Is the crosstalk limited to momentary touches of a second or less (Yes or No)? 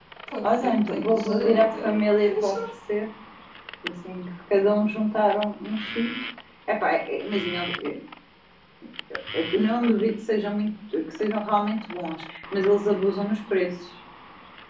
No